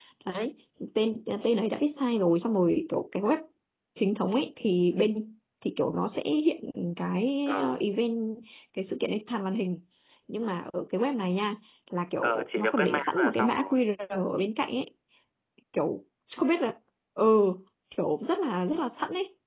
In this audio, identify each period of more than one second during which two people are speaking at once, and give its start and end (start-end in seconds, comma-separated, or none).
12.2-13.8